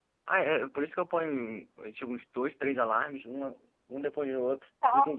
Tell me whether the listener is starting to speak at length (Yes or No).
Yes